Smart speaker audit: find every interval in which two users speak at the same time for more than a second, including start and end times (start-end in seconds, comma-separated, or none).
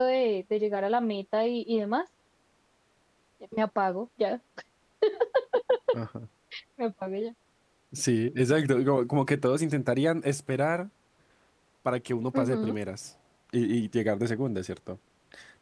none